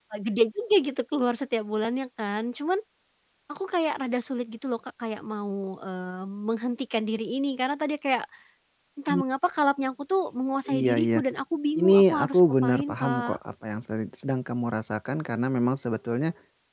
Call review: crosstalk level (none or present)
present